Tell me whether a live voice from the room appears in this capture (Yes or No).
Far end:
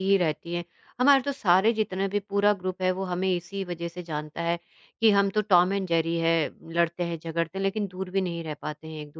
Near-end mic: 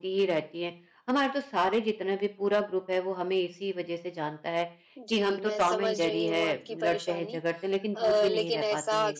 Yes